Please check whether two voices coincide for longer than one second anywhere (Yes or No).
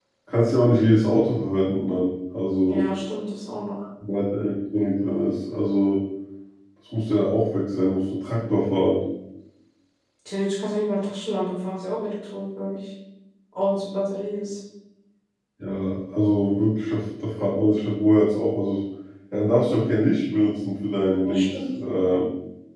No